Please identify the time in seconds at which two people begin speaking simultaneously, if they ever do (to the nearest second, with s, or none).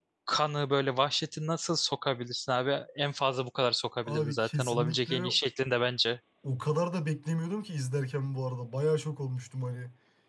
4 s